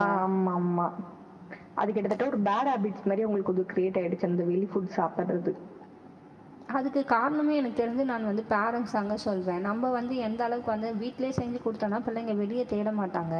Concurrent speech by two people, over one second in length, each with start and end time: none

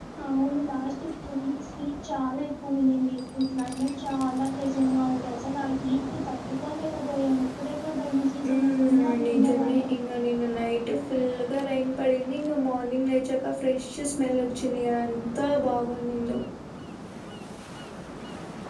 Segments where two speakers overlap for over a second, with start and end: 8.5-9.9

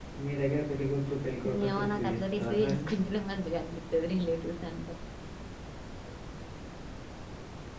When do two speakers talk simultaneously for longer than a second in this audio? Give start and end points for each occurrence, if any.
1.6-2.9

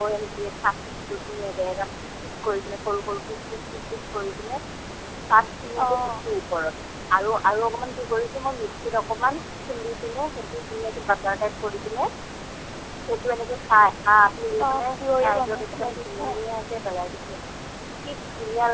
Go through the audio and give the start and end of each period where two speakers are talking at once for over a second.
14.7-16.2

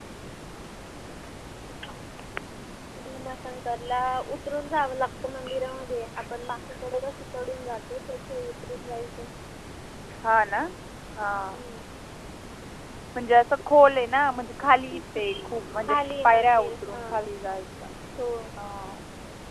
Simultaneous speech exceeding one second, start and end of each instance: 15.9-17.2

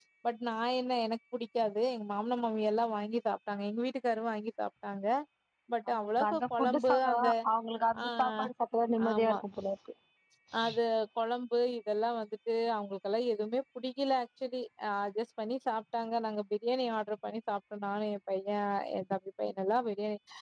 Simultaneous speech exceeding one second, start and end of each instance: 5.9-7.3

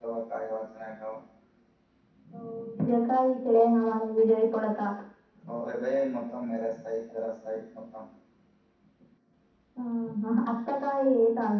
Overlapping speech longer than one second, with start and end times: none

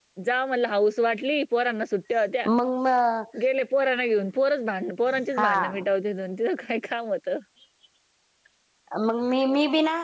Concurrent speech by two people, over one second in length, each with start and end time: none

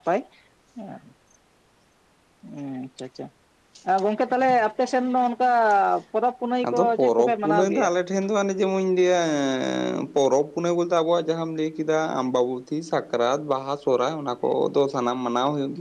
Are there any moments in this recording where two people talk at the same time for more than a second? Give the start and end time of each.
6.7-7.9

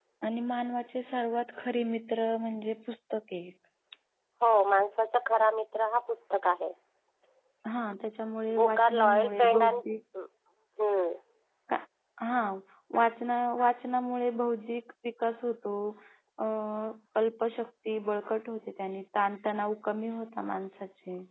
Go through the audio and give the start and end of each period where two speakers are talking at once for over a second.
8.5-9.8

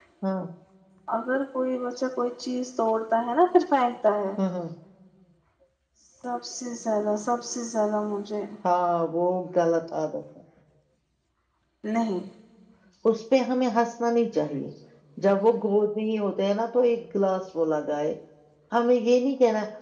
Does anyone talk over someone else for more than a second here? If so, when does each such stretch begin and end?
none

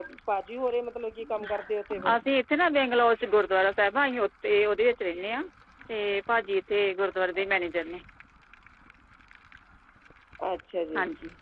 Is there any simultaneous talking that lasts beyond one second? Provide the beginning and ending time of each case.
none

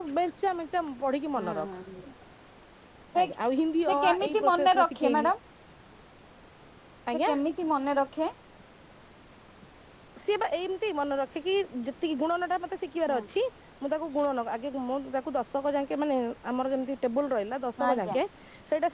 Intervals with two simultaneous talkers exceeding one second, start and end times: 3.9-5.3

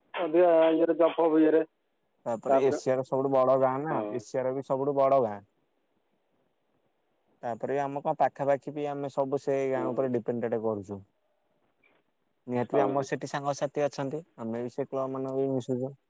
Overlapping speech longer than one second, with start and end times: none

